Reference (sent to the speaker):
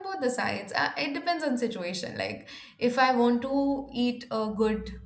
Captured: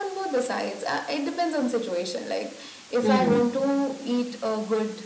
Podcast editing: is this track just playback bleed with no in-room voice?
No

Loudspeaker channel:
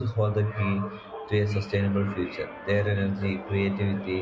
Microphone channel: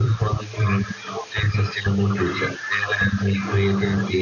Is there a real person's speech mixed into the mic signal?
No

